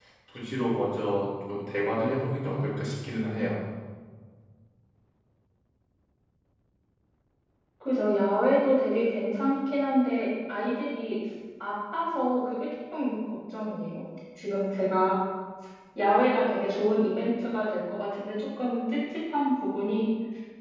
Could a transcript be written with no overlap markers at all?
Yes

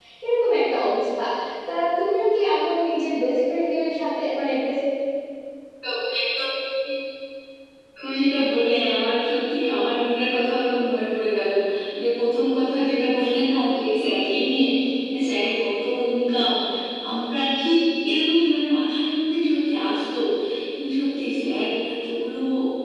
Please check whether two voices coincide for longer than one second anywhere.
No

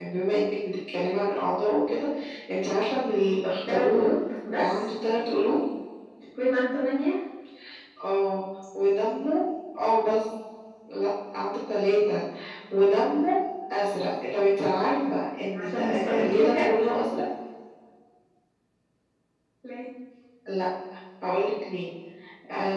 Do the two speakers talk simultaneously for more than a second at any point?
Yes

